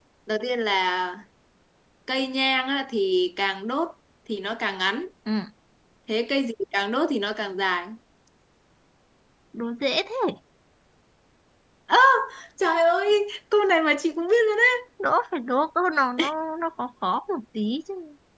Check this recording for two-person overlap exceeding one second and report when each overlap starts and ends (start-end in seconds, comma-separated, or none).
none